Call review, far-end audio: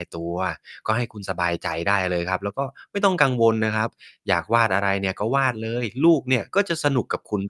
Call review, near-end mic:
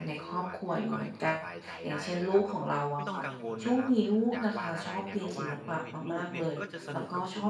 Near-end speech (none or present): present